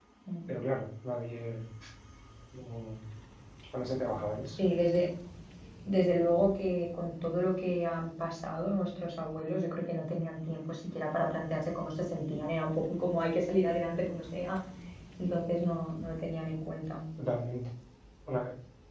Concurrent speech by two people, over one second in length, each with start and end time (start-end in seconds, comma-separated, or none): none